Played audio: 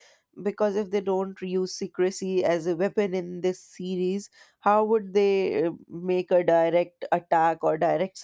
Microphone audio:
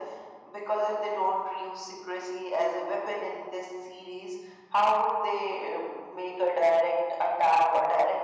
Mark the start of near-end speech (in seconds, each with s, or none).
none